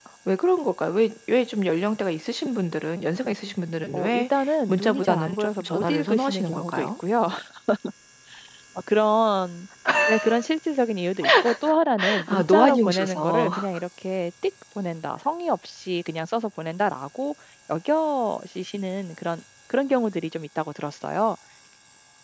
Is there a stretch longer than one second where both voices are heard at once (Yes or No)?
Yes